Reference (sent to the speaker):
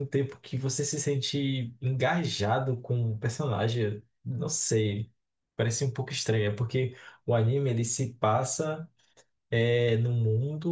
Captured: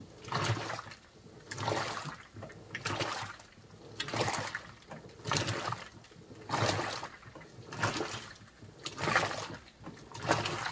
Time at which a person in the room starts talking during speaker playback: none

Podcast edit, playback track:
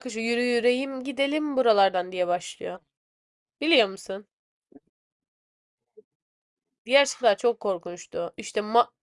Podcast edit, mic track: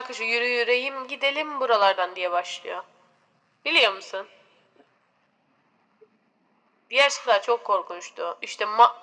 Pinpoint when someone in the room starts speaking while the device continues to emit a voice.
none

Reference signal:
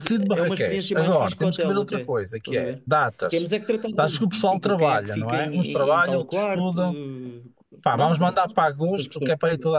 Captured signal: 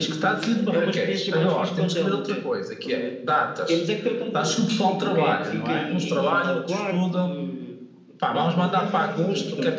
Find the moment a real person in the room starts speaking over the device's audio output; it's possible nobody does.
8.5 s

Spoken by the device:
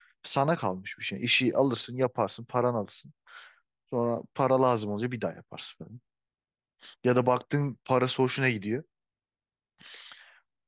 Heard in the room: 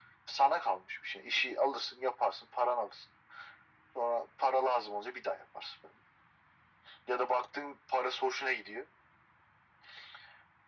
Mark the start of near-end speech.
none

